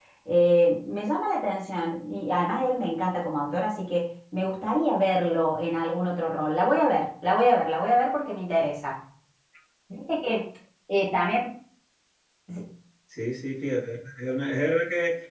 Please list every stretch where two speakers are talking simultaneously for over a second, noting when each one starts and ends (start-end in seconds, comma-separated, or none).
none